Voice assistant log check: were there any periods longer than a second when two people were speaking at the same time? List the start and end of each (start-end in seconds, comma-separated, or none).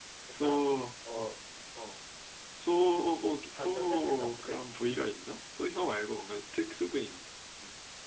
3.5-4.7